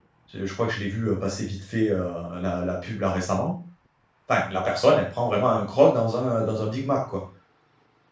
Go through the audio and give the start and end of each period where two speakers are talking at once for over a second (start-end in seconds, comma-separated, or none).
none